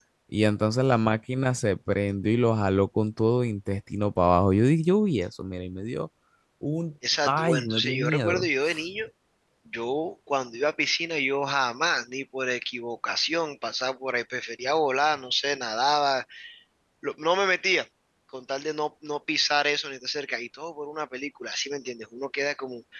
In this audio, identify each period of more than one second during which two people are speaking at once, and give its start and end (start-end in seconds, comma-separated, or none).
7.2-8.5